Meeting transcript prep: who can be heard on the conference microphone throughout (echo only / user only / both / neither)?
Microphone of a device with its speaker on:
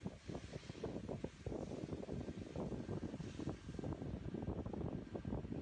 neither